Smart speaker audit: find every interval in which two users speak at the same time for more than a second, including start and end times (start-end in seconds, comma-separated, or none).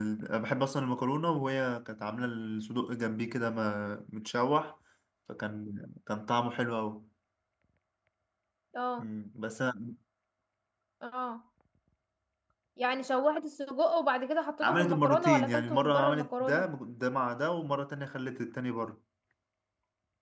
14.6-16.7